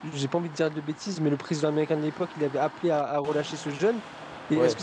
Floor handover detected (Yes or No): No